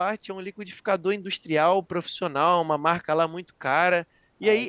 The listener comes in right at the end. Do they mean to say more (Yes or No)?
No